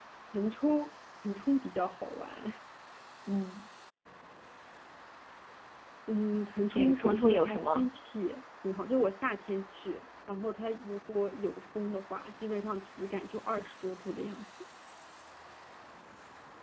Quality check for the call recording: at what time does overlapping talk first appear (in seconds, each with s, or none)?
6.7 s